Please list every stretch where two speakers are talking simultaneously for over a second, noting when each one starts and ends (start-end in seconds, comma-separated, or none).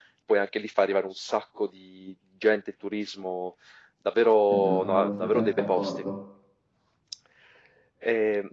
4.5-5.9